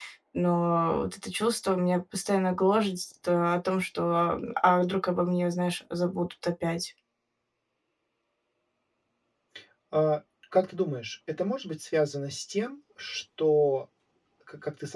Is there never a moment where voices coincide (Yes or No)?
Yes